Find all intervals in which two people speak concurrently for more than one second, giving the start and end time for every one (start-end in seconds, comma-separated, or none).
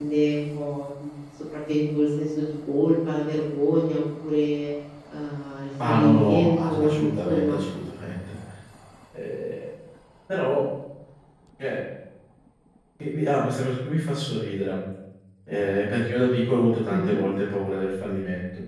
5.8-7.6